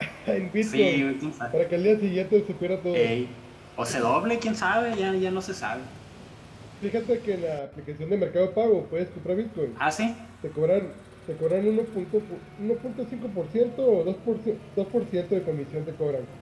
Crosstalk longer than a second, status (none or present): none